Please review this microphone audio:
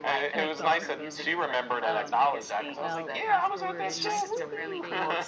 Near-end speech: present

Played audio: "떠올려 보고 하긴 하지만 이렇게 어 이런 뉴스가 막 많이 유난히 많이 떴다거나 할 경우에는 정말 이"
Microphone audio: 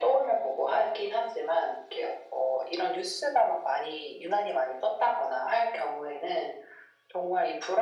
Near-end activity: none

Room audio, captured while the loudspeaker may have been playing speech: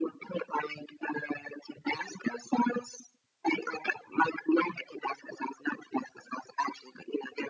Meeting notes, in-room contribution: none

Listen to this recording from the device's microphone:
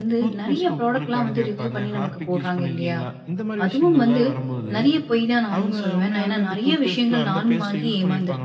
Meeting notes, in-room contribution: present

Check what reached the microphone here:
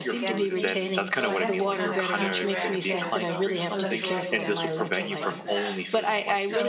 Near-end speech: present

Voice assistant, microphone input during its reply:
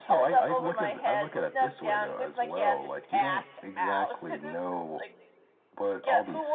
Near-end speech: none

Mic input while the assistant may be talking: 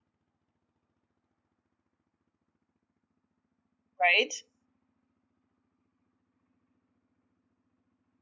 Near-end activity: present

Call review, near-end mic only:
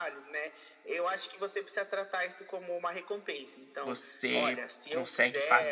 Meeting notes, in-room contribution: present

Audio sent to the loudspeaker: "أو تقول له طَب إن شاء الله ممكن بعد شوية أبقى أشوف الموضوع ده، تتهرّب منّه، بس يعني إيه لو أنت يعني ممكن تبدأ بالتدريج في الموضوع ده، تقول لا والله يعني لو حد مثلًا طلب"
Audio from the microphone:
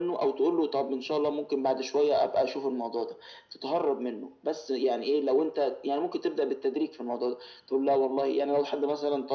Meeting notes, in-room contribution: none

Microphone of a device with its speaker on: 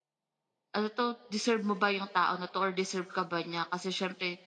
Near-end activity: present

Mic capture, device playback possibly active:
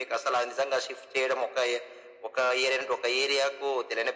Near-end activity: none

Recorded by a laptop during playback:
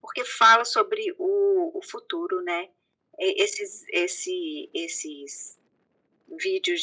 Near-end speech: none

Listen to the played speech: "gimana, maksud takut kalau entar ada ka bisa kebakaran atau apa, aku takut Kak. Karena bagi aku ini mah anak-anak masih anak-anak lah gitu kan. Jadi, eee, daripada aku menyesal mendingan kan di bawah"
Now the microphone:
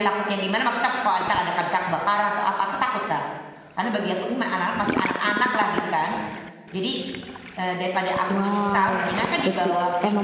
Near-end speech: present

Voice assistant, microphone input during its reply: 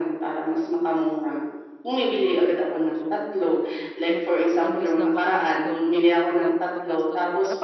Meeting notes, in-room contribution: present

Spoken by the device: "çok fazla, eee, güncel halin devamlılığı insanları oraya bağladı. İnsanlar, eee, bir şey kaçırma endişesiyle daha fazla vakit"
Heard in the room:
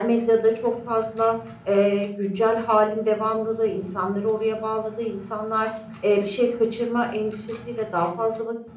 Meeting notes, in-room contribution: none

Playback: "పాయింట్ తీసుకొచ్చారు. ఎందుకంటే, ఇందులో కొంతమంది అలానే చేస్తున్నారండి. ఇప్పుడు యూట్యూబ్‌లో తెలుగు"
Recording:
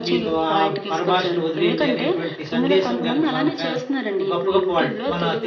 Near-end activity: present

